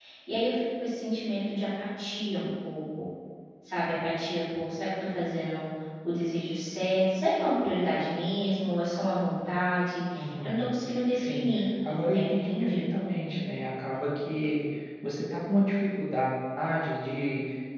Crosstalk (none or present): present